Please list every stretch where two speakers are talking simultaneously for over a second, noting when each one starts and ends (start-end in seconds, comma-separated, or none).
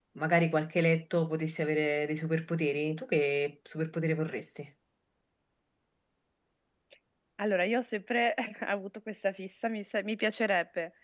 none